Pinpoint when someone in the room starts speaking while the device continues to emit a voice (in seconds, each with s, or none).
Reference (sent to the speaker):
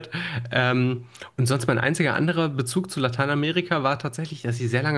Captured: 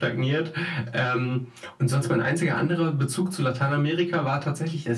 none